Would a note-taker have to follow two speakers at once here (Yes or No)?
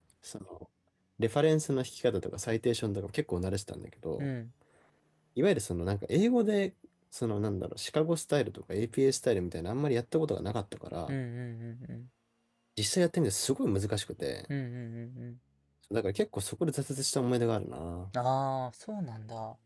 No